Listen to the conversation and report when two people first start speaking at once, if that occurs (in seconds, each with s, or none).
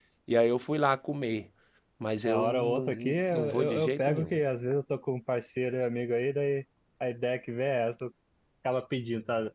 2.2 s